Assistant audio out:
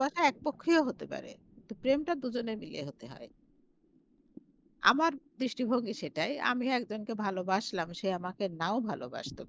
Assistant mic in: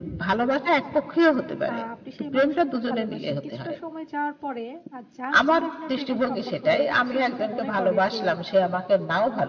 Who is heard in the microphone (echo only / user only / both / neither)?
both